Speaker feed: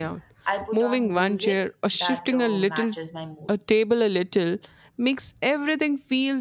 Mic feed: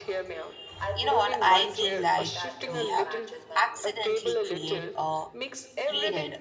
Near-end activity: present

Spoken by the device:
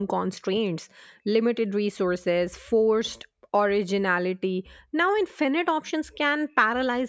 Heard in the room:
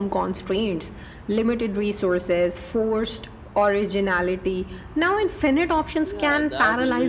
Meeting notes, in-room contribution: present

